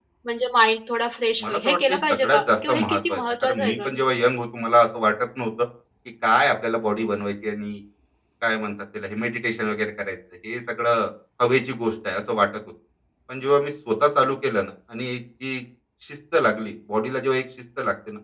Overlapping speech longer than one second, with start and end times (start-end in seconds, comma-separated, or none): 1.4-3.9